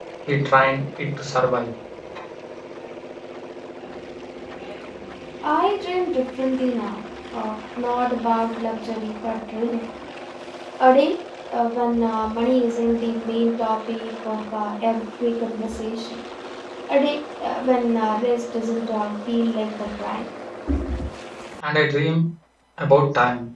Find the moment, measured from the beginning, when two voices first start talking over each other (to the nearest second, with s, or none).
none